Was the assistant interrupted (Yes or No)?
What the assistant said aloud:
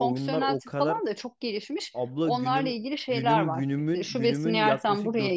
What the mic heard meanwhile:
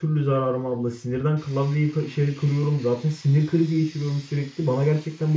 Yes